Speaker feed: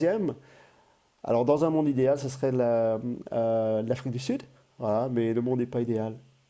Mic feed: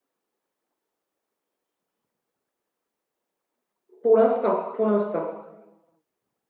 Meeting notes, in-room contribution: present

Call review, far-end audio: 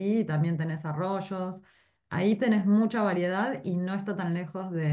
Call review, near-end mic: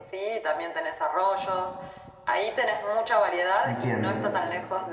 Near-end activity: present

